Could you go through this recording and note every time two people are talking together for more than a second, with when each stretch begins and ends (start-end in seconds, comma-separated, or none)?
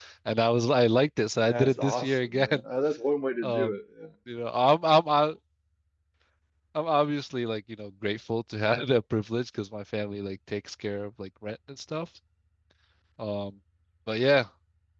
1.4-2.6